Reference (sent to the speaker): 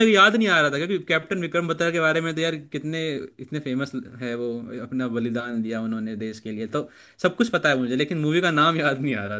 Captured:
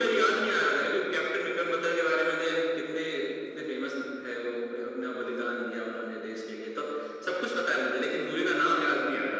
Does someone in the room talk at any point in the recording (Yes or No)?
No